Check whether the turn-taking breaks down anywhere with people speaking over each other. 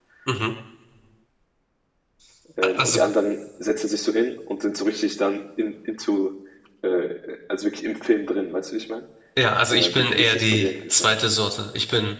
Yes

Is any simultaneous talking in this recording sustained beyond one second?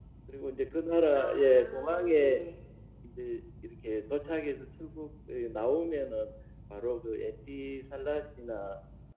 Yes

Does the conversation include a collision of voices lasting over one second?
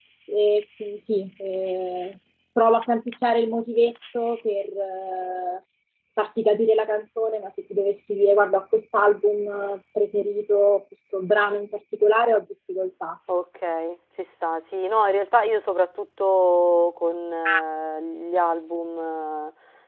No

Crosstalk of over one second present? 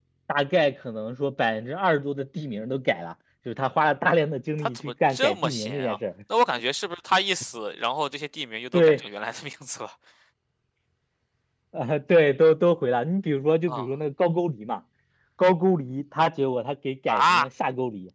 Yes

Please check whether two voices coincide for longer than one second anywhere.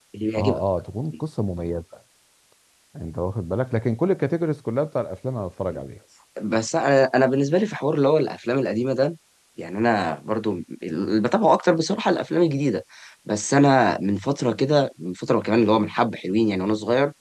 No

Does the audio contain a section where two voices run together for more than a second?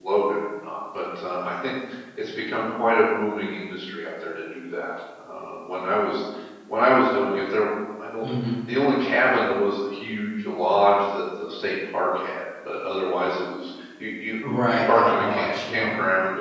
Yes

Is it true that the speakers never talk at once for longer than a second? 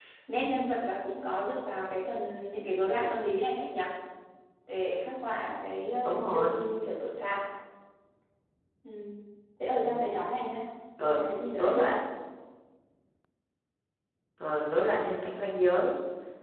Yes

